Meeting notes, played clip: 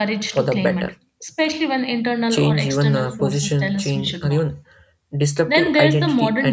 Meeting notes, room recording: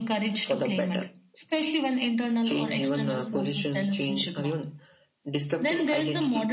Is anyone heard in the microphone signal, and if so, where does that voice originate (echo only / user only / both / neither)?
echo only